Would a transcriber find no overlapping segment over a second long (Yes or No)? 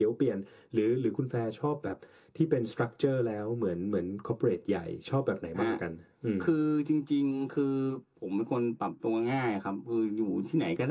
Yes